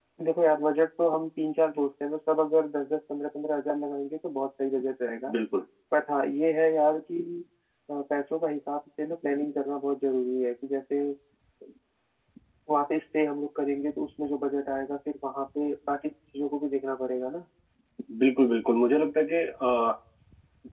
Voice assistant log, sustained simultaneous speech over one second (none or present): none